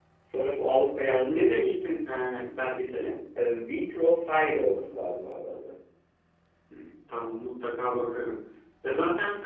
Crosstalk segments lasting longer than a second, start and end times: none

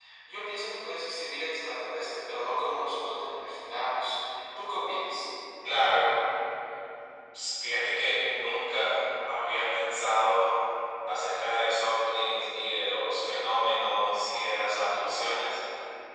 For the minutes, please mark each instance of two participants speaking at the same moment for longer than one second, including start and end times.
none

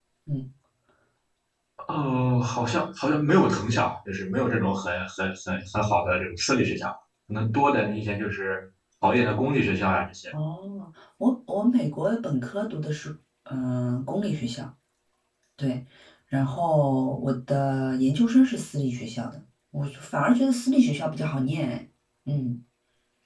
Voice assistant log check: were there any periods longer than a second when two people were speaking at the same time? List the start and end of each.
none

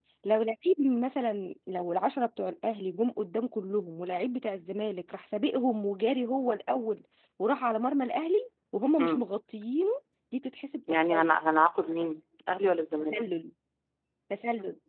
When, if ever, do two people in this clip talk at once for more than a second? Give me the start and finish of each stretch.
none

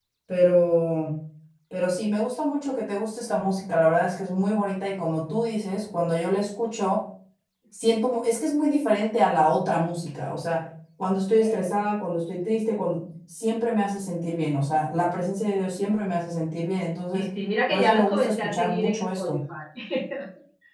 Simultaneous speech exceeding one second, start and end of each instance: 17.7-19.4

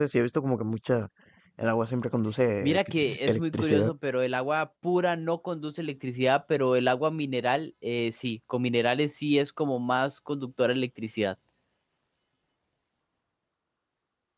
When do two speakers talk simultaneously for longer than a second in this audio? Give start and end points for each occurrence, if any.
2.6-3.9

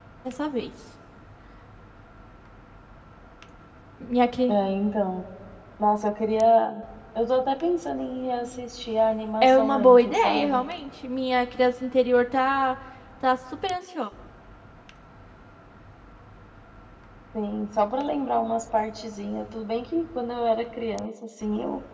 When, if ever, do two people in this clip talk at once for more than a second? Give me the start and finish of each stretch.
9.4-10.6

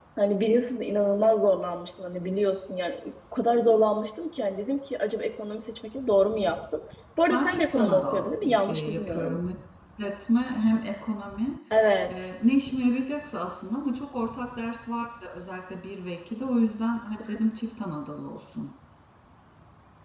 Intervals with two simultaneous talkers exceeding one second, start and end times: 7.3-9.4

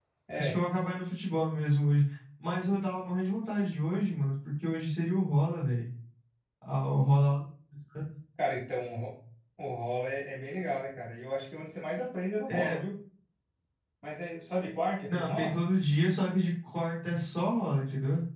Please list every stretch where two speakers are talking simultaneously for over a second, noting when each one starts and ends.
none

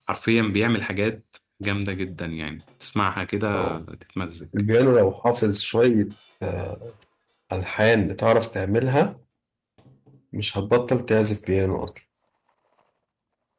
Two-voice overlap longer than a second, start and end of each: none

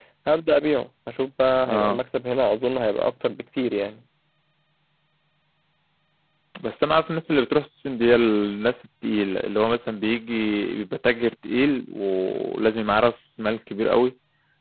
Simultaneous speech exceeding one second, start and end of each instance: none

